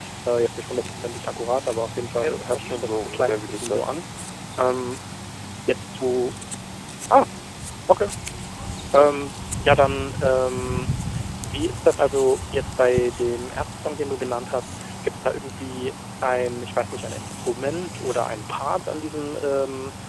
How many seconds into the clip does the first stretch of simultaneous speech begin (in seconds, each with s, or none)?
2.2 s